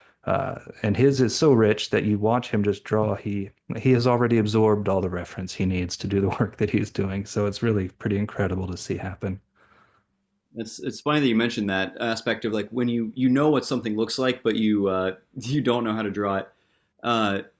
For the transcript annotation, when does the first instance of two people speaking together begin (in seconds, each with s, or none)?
none